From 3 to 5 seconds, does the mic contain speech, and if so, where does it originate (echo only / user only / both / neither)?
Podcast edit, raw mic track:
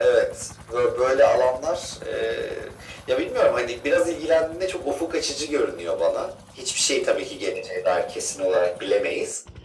echo only